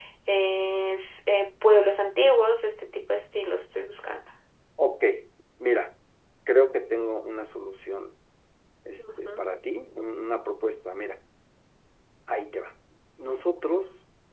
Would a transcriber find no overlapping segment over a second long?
Yes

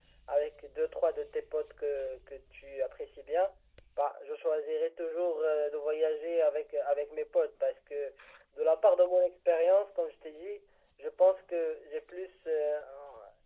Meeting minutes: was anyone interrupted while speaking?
No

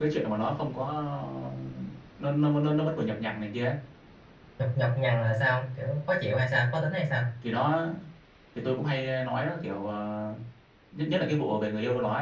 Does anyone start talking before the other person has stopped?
No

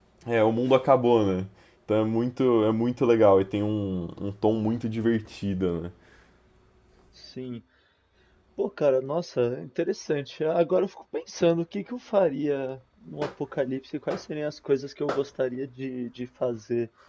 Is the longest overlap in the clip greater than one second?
No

